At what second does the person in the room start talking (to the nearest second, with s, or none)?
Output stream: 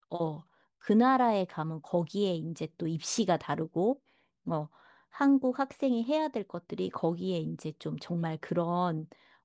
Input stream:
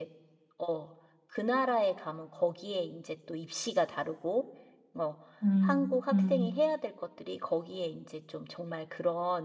5 s